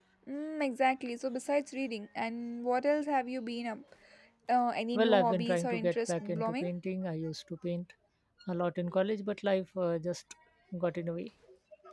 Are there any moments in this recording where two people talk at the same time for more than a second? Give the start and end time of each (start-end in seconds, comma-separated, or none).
4.9-6.7